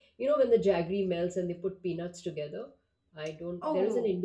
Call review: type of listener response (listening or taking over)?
listening